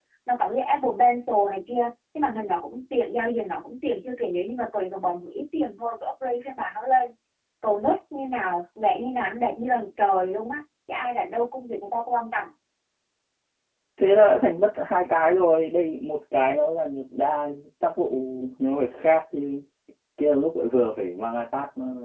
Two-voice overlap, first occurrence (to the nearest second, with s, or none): none